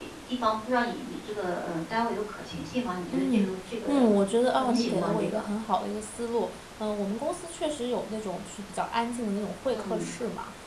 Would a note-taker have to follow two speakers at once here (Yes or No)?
Yes